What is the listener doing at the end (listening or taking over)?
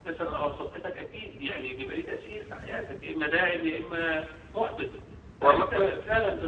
listening